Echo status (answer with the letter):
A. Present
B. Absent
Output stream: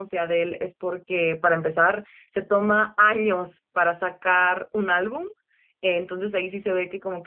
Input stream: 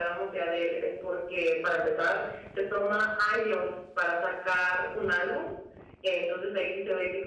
A